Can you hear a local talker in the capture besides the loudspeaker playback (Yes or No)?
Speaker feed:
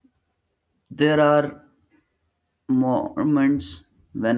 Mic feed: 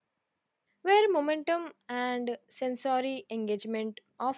Yes